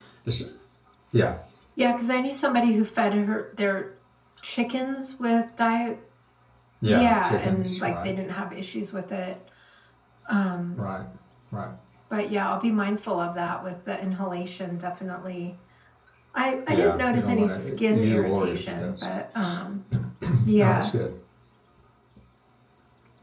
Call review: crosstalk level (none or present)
present